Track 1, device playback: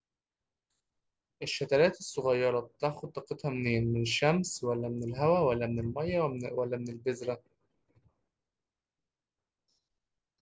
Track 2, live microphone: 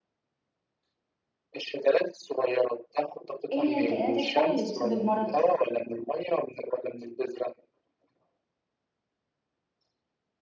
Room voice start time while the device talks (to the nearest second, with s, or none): 4 s